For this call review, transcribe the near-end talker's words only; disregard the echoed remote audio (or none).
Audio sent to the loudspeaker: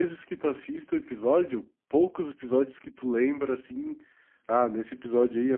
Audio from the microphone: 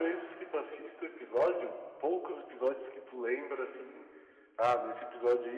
none